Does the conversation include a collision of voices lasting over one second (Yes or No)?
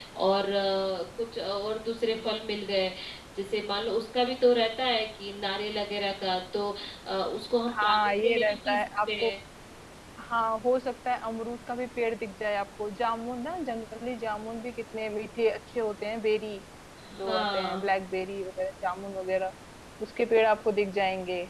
Yes